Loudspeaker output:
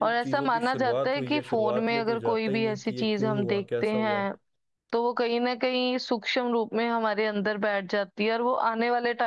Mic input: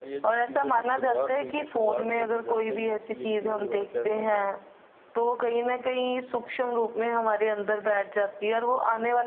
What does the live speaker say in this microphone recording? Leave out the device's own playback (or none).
none